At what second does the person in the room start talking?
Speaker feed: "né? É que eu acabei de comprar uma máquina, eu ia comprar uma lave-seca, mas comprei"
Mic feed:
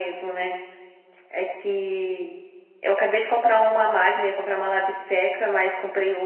none

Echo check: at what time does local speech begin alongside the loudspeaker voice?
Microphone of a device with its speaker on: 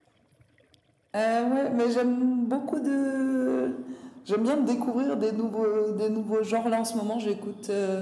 none

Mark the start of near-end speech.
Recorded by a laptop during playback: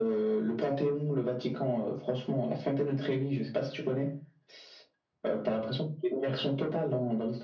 none

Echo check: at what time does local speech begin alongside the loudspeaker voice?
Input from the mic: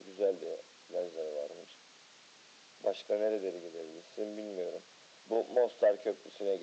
none

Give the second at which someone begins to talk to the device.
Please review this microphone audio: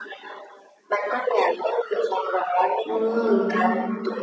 3 s

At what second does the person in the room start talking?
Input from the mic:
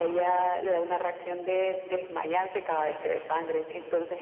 none

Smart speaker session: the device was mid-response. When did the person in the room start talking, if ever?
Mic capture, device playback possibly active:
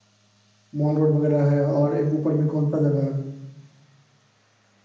1 s

